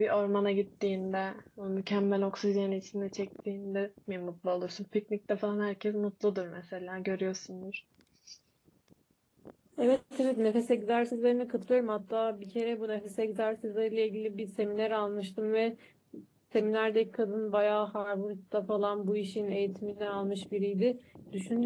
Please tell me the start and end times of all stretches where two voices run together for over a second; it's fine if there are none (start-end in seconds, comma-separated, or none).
none